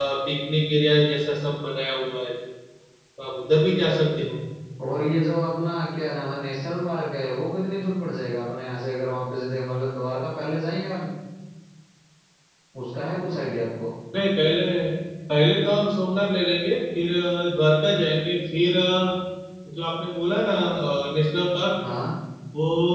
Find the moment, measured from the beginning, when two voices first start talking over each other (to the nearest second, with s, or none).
none